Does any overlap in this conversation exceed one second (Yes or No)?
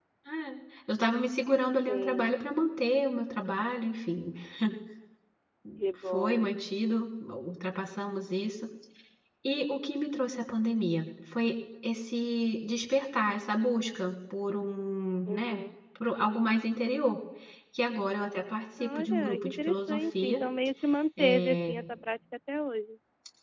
Yes